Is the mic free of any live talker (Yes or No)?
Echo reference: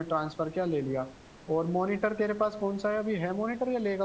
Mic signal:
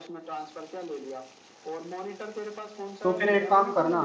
No